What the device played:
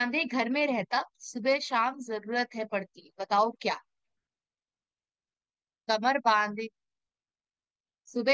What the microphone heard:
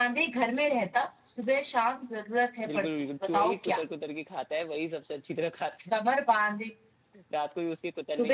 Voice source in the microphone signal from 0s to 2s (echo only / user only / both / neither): echo only